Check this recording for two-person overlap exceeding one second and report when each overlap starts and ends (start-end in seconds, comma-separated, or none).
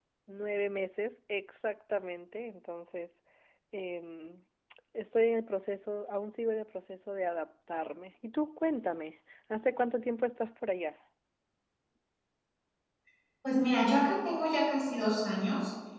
none